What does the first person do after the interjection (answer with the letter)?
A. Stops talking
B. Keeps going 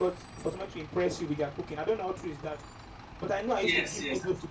A